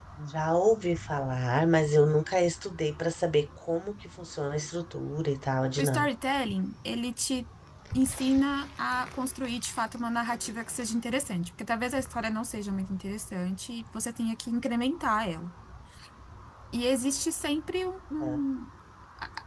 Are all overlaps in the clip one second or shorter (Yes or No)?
Yes